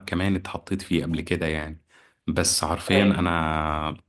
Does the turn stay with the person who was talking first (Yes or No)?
Yes